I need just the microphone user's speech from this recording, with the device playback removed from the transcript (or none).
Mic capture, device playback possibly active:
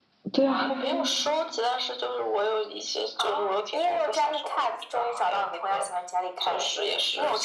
对啊，